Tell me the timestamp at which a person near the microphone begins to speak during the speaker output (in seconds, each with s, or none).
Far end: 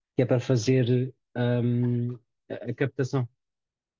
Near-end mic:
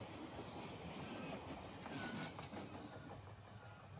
none